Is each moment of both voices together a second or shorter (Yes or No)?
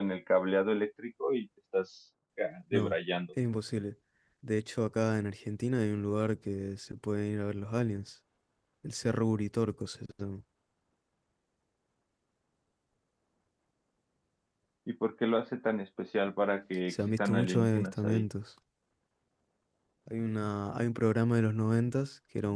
No